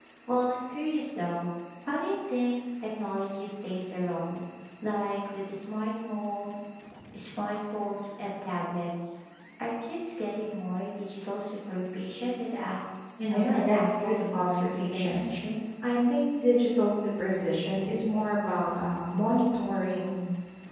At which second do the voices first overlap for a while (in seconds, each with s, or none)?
13.3 s